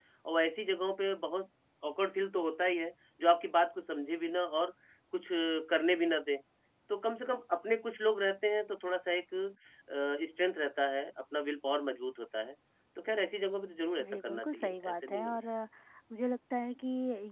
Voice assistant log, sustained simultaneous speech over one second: present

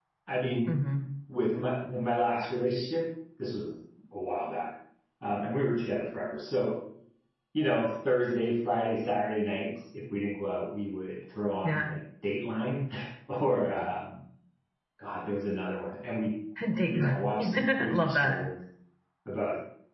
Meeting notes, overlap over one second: present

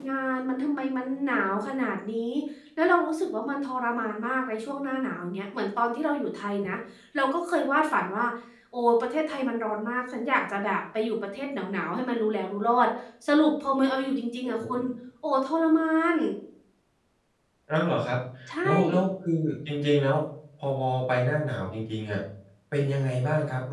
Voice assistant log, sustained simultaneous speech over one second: none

